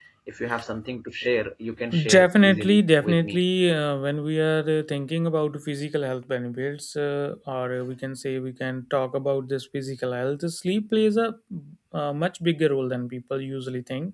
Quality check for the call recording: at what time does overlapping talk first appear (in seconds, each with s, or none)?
1.9 s